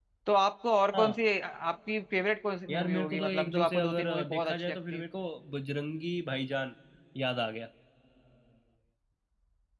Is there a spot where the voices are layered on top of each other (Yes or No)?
Yes